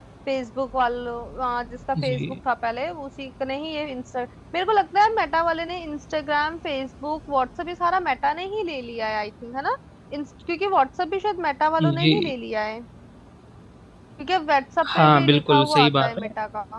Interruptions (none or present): present